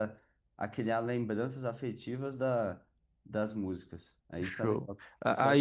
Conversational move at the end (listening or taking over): taking over